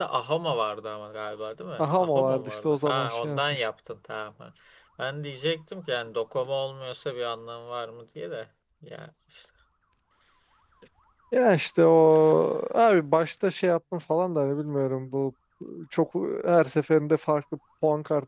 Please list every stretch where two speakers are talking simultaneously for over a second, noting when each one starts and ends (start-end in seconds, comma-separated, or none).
1.8-3.7